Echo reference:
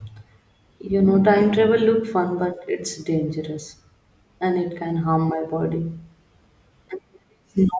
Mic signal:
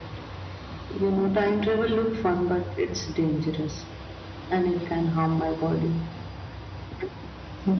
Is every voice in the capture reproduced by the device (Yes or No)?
Yes